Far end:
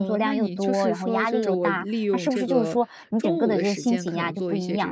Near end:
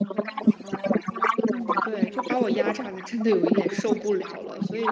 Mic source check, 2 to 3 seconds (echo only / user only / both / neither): both